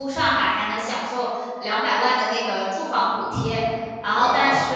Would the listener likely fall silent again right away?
No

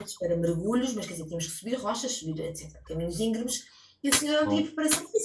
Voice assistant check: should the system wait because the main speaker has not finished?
Yes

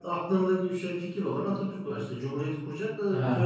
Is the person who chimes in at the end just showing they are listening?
No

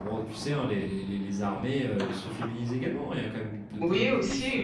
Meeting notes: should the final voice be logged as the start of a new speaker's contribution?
Yes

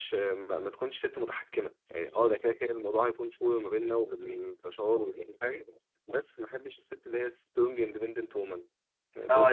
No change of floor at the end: No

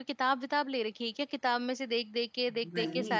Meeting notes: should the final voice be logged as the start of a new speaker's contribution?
Yes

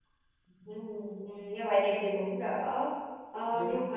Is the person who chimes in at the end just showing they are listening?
Yes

